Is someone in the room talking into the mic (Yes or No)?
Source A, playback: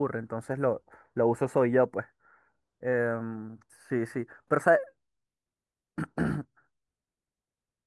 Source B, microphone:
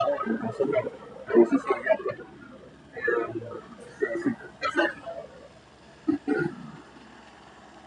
No